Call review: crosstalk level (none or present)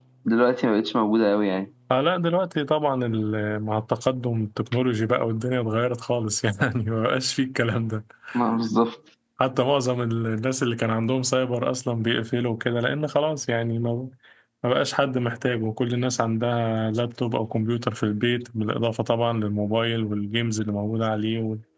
none